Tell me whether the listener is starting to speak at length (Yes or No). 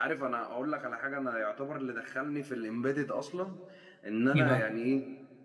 No